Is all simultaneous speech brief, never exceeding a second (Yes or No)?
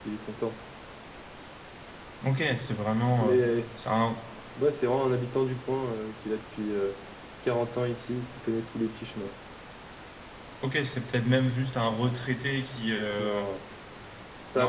Yes